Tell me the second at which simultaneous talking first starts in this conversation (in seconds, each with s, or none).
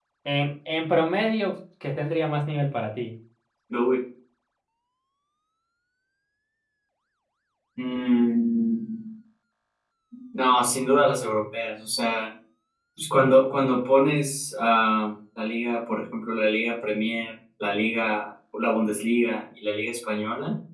none